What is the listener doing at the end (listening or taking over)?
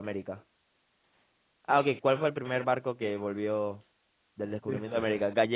listening